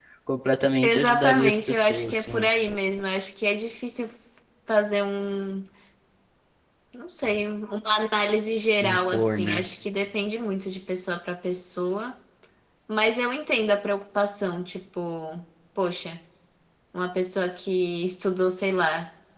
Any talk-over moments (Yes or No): Yes